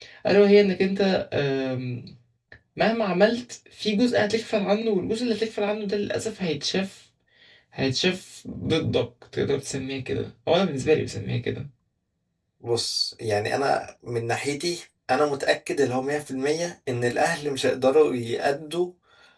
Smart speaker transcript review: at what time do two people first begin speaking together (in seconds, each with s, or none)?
none